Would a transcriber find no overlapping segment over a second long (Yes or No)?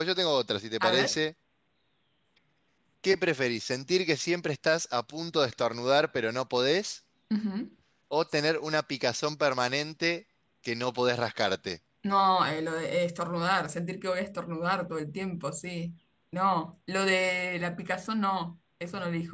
Yes